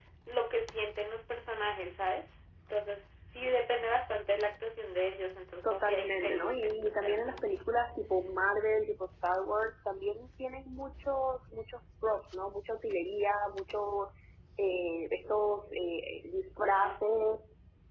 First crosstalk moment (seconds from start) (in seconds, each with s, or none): 5.6 s